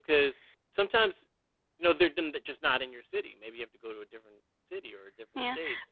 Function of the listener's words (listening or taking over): taking over